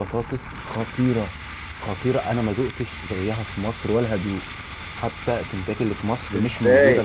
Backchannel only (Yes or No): No